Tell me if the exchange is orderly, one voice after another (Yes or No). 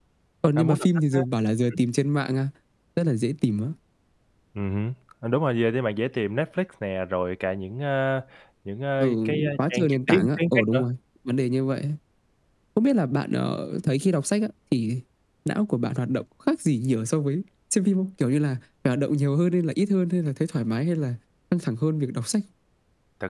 No